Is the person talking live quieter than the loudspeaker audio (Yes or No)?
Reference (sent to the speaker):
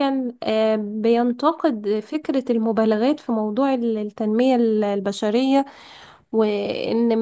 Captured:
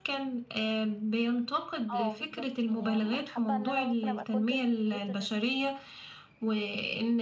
Yes